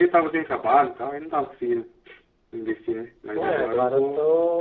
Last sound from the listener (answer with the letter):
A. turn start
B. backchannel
A